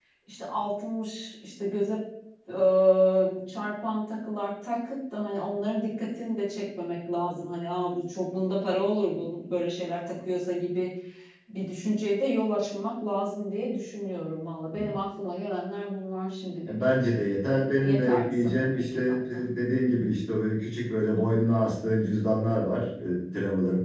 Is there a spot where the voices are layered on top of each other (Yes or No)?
Yes